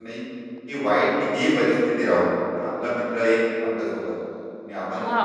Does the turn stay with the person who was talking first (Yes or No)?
No